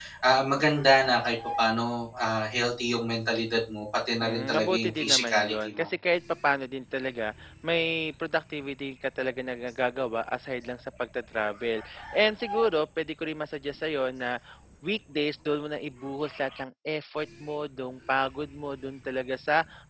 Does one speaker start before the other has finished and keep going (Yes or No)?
Yes